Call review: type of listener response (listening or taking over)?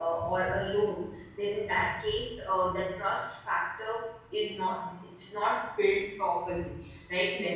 listening